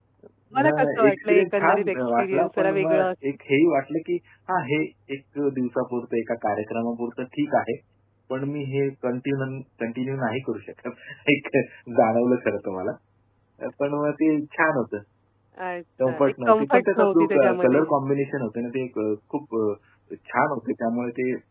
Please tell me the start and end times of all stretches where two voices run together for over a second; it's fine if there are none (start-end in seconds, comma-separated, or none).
0.6-3.1, 16.1-17.8